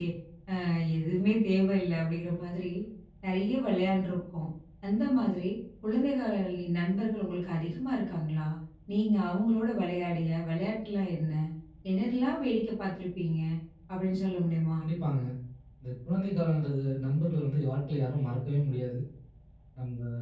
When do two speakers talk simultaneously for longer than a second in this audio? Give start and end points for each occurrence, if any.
none

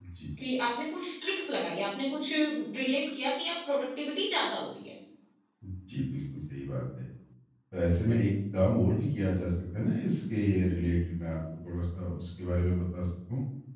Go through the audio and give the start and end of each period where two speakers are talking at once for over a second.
none

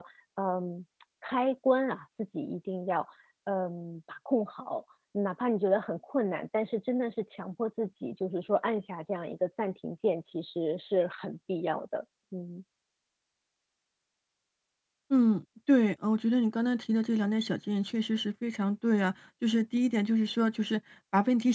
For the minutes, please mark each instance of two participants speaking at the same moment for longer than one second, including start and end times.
none

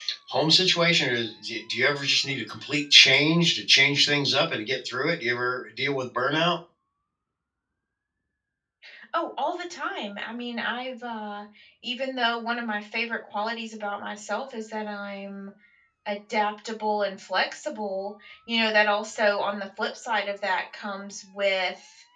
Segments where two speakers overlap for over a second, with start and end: none

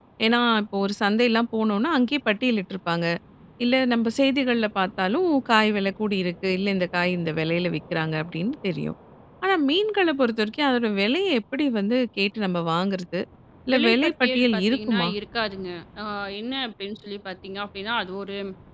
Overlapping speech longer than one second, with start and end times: 13.7-15.1

